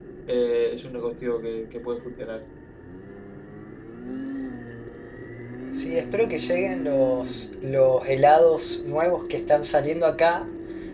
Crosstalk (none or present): none